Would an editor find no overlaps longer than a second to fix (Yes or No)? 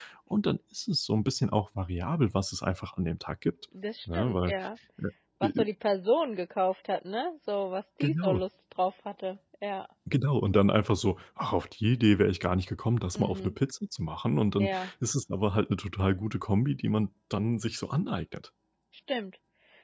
Yes